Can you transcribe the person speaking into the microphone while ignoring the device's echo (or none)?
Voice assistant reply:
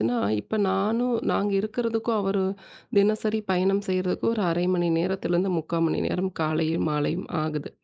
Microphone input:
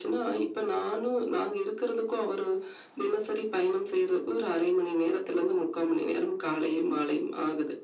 none